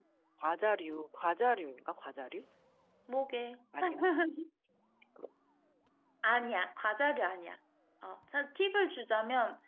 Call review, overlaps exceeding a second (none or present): none